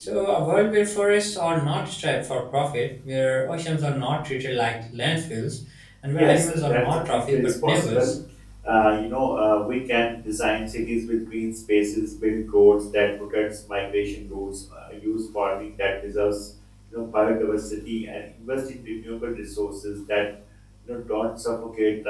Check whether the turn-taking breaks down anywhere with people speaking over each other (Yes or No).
Yes